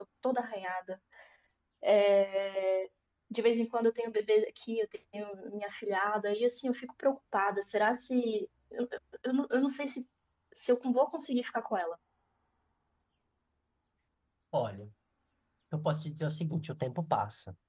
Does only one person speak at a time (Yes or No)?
Yes